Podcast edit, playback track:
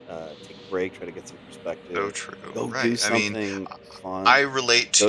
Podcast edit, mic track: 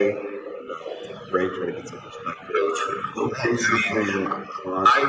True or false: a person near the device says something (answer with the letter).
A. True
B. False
B